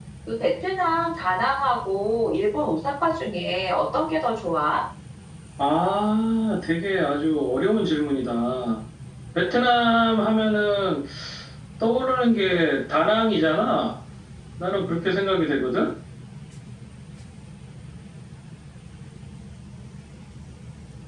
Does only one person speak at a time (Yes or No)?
Yes